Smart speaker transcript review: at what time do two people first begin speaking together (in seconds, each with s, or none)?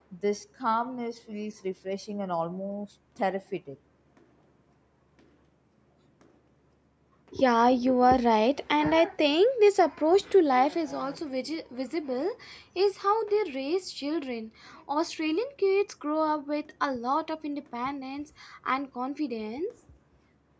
none